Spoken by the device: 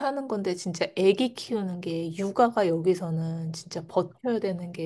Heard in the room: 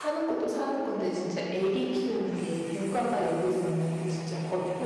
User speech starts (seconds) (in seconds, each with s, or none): none